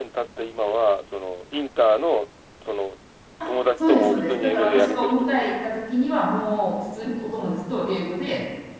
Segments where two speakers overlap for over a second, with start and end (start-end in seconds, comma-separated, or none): 3.8-5.6